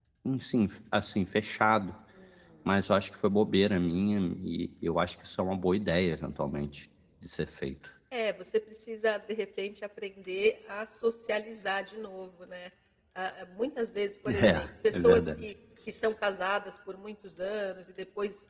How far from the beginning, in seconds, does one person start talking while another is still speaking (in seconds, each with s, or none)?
14.3 s